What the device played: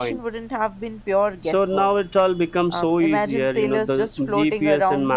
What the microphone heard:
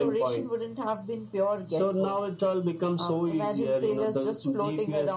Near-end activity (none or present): none